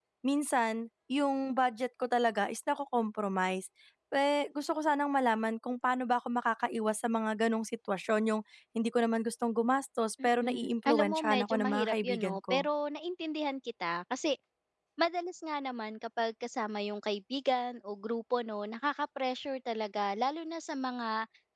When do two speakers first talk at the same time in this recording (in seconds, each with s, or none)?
10.2 s